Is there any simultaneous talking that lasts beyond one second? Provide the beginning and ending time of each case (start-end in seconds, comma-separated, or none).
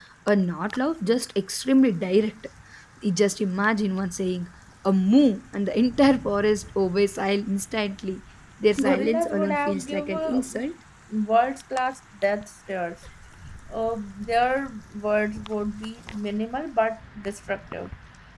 8.8-10.4